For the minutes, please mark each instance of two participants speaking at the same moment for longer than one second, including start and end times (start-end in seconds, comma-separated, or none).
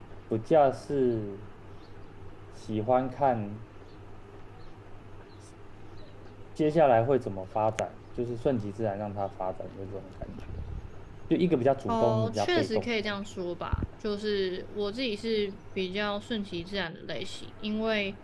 11.9-13.2